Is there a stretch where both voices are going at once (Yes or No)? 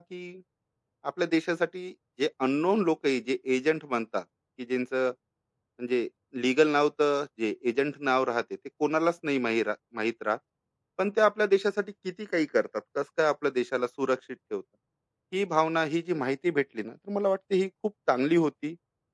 No